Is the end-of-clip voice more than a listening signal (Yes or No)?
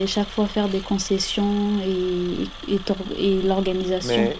Yes